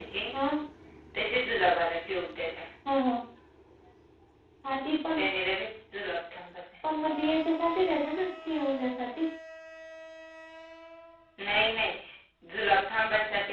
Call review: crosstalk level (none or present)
none